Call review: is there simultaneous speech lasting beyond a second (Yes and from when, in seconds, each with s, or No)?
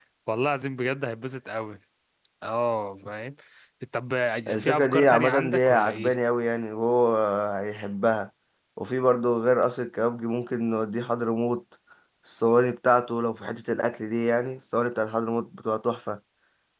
Yes, from 4.6 s